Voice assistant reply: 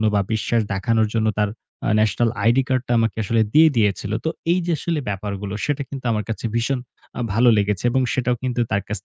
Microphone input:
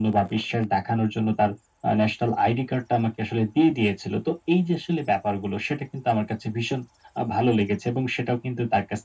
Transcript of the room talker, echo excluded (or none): none